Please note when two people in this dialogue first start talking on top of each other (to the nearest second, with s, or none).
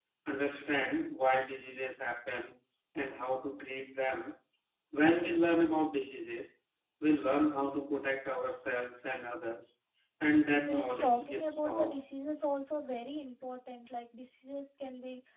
11 s